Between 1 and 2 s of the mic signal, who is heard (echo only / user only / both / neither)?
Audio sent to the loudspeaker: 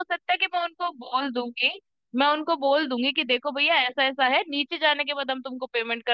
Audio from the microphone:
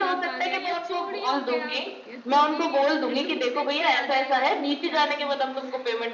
both